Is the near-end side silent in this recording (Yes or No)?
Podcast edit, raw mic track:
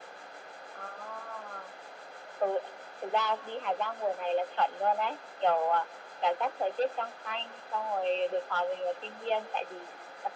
Yes